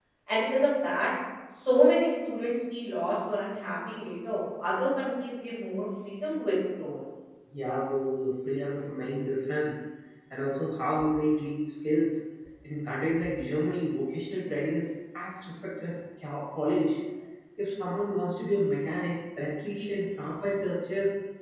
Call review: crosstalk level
none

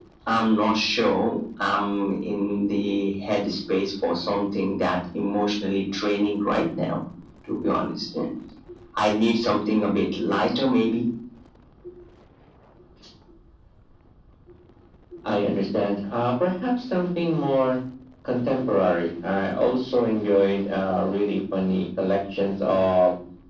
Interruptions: none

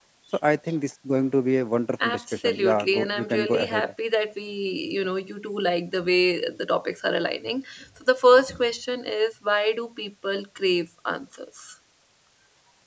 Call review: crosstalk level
present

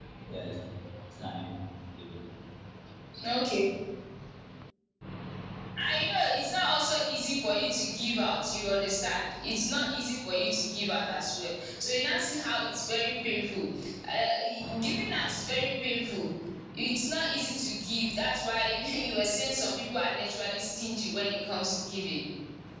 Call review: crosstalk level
none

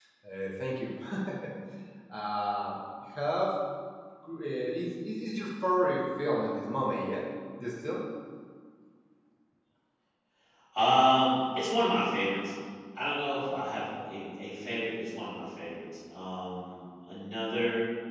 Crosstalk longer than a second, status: none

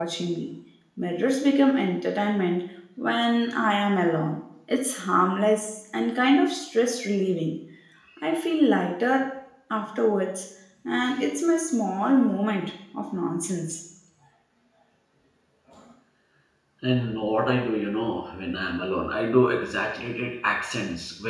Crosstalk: none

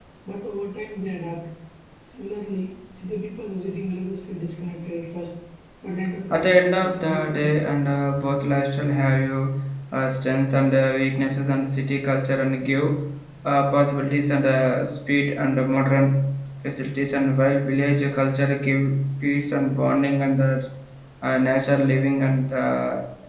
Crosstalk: present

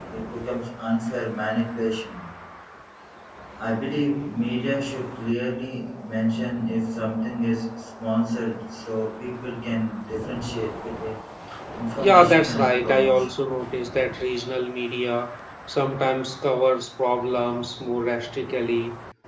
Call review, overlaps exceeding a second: present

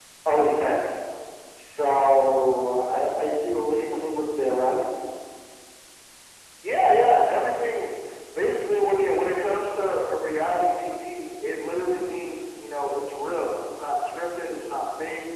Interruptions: none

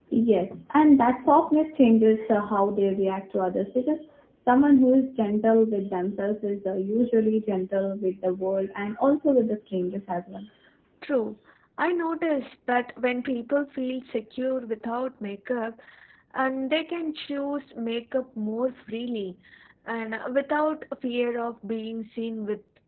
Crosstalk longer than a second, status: none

